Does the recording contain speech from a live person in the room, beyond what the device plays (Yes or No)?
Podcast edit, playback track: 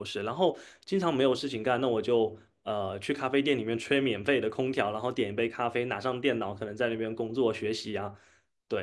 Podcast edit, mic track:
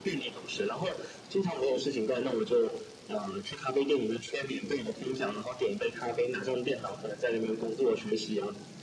No